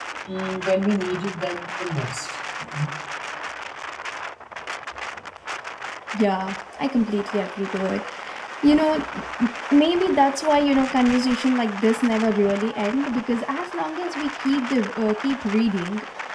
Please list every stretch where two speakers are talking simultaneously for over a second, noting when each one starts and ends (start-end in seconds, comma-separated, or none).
none